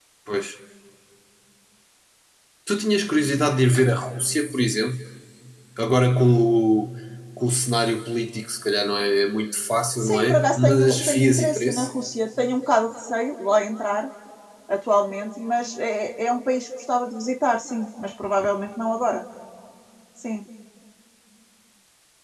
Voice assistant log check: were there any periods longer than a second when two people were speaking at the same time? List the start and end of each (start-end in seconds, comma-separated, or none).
10.0-11.9